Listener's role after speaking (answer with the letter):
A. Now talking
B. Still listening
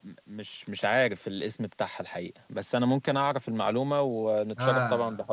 A